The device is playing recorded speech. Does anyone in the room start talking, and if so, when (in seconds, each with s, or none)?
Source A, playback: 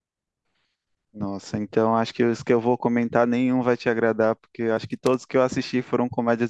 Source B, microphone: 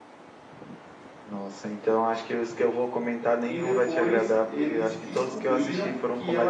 3.5 s